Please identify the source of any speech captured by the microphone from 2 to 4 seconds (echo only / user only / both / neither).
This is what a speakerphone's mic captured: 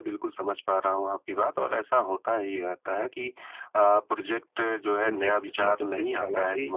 echo only